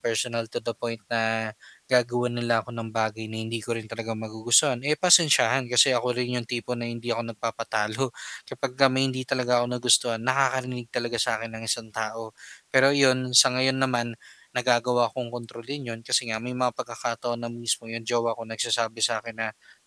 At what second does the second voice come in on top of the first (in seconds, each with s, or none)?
none